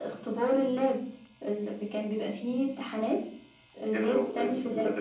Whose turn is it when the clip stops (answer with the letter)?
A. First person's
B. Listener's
B